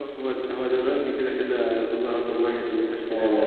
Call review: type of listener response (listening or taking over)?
taking over